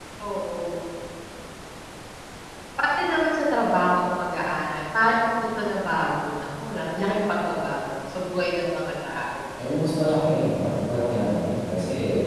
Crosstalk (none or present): none